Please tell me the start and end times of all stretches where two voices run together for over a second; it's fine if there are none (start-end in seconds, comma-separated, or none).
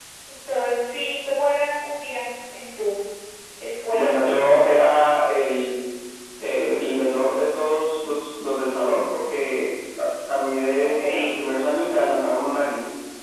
none